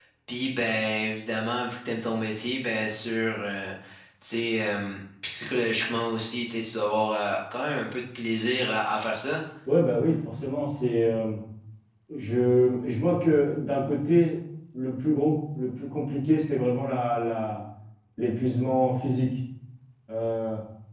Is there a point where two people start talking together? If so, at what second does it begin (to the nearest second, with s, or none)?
none